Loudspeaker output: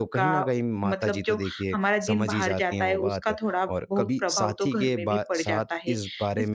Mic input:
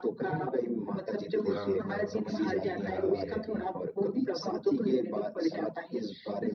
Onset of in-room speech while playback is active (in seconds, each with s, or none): 1.4 s